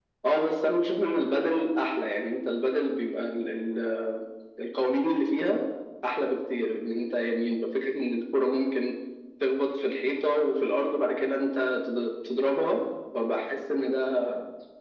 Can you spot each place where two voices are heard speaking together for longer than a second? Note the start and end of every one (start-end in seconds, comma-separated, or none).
none